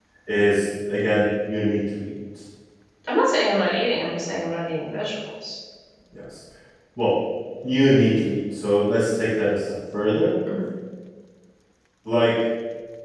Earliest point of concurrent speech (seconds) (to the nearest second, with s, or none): none